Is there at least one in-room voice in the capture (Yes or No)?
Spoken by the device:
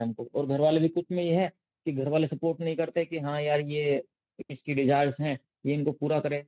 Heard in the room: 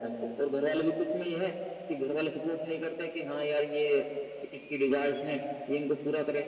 No